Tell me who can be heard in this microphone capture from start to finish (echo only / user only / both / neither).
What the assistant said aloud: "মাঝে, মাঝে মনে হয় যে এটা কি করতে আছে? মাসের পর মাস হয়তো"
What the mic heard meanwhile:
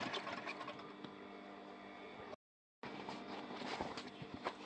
neither